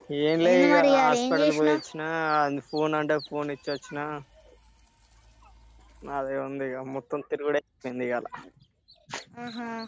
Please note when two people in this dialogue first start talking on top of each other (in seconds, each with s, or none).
0.5 s